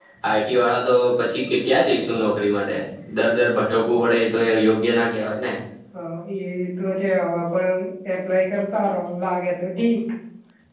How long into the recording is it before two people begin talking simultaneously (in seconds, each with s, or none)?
none